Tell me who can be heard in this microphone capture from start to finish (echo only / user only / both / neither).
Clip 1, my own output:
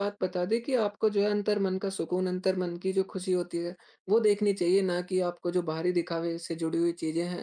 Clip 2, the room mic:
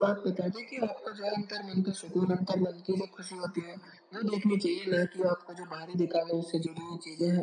echo only